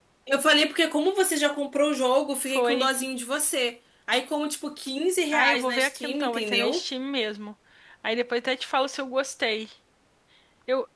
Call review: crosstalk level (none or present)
present